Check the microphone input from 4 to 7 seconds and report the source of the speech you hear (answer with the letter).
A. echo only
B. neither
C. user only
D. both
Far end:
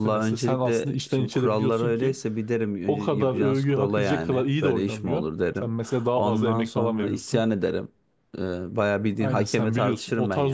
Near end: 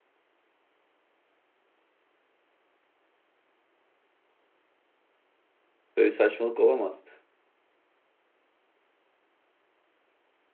C